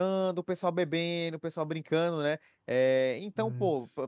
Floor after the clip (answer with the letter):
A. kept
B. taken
A